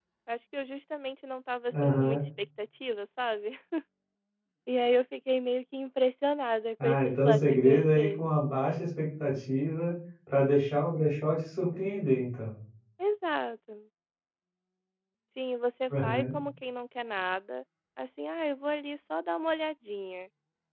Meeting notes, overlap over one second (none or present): present